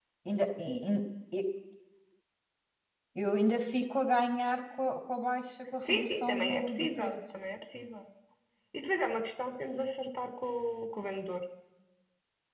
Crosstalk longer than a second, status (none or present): present